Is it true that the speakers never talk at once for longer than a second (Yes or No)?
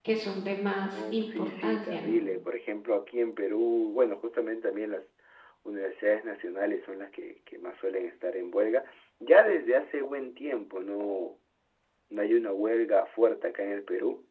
No